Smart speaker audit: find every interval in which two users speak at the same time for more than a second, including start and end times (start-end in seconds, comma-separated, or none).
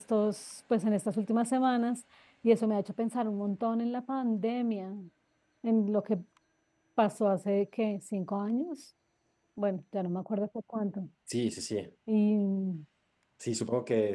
none